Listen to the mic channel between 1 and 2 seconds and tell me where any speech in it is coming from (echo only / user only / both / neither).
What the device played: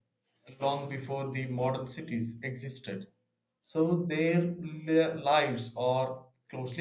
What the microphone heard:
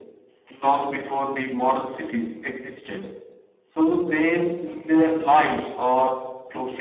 echo only